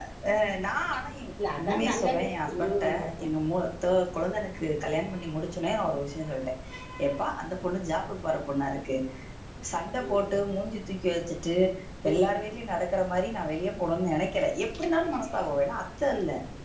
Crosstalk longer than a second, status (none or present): present